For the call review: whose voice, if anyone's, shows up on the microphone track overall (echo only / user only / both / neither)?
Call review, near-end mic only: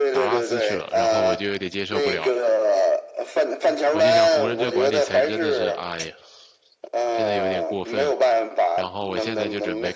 both